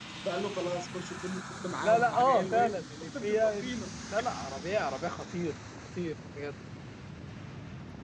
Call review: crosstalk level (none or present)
present